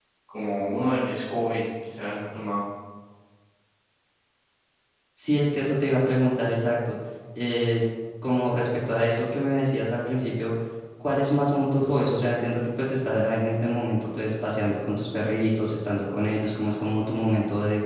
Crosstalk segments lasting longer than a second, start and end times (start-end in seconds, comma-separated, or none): none